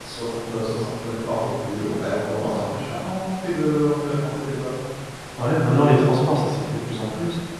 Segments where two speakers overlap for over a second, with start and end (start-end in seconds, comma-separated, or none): none